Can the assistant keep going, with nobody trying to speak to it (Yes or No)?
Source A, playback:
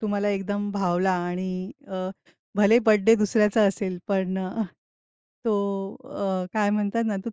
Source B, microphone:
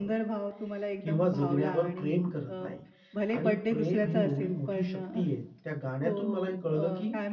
No